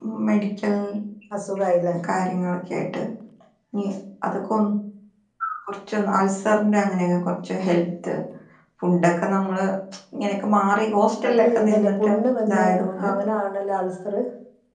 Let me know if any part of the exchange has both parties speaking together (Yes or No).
Yes